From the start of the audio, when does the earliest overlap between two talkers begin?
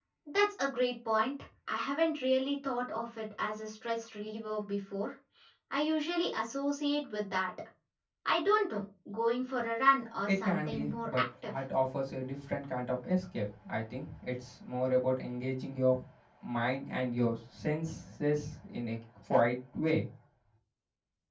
10.3 s

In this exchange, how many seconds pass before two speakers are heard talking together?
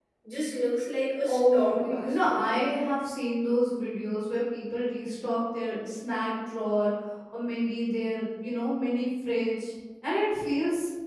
1.2 s

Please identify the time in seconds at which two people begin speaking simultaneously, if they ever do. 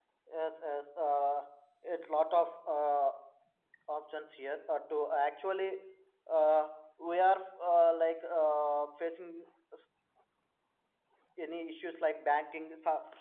none

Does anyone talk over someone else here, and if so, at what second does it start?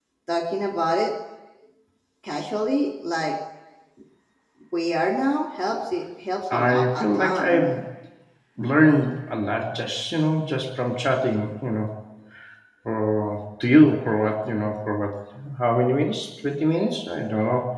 6.5 s

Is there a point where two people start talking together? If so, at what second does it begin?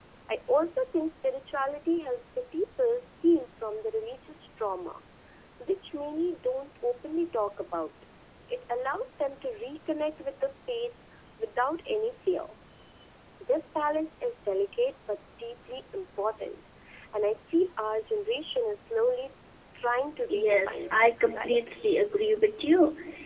20.4 s

